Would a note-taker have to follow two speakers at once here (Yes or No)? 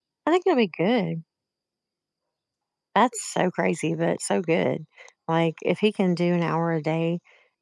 No